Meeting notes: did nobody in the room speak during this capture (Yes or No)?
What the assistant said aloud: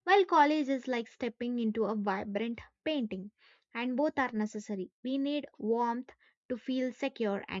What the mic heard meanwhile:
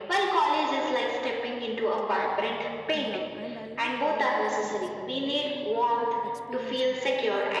No